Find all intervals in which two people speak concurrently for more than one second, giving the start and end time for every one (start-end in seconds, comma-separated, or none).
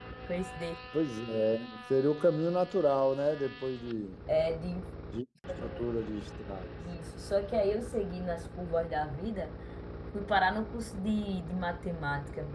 none